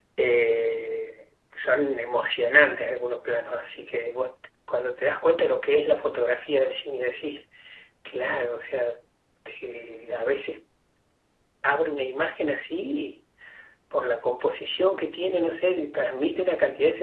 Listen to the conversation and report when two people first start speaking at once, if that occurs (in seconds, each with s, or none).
none